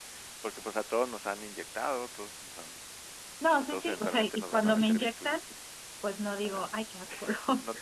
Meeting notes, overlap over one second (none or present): present